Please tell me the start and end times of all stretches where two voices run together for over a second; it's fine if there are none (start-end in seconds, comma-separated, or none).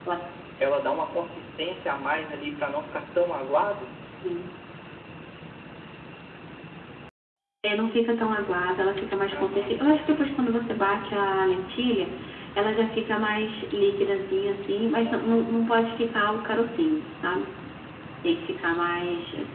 none